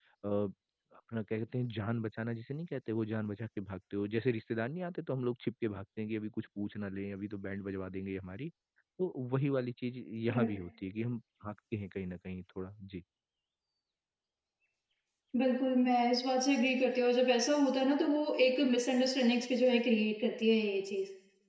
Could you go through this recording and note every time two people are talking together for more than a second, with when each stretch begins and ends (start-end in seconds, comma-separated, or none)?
none